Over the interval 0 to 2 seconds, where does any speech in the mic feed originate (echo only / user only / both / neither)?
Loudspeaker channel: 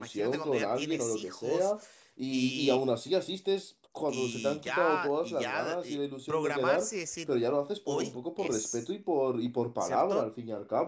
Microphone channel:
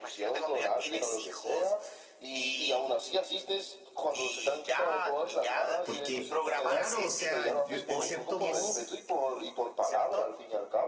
echo only